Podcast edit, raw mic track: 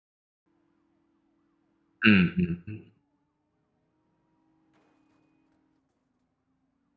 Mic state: user only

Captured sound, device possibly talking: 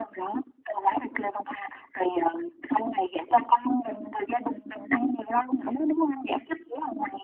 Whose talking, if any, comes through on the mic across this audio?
echo only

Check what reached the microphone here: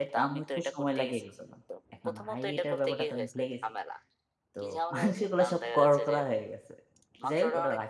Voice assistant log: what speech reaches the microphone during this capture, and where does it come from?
both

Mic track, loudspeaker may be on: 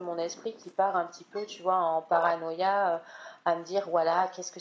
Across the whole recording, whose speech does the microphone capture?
echo only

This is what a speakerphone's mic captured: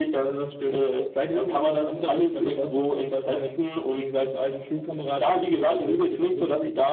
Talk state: both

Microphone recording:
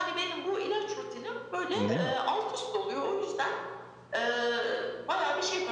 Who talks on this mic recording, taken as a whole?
both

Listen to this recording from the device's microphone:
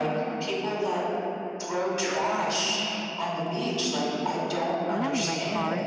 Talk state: both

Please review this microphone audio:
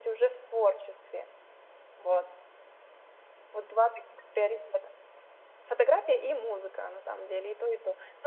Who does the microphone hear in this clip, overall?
echo only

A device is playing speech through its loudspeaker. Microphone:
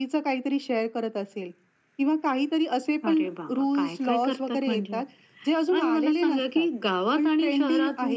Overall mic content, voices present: echo only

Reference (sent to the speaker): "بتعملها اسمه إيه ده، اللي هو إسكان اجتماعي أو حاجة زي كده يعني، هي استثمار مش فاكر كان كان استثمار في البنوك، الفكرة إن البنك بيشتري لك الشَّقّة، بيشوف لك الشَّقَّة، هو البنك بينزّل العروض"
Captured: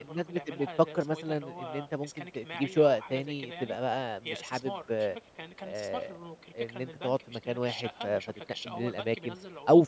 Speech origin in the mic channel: both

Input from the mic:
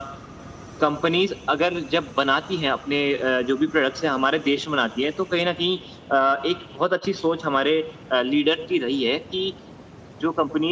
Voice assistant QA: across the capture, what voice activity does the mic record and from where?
echo only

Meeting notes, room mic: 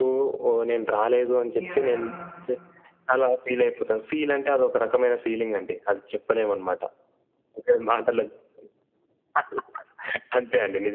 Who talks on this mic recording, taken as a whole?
both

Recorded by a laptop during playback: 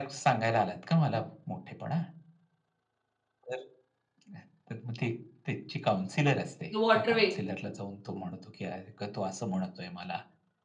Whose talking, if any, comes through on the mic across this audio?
both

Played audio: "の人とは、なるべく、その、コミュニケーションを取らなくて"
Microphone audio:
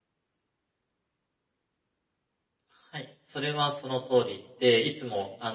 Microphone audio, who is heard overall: user only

